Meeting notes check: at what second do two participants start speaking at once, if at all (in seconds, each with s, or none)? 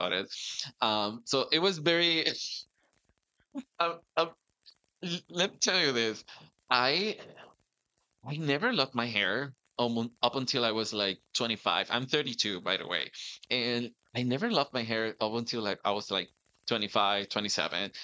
none